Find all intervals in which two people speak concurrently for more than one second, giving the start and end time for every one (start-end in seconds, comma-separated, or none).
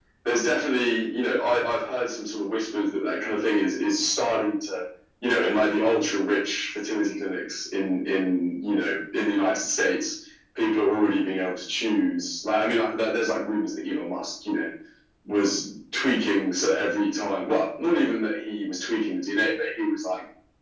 none